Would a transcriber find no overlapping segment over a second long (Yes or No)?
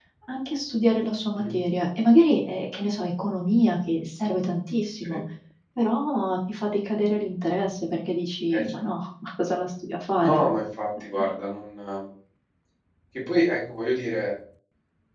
Yes